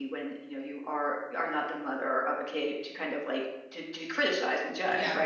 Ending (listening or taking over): taking over